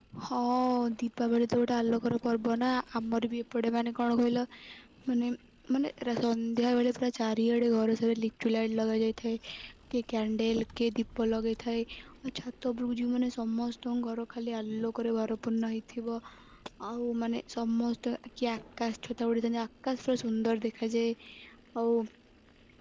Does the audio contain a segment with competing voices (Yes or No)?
No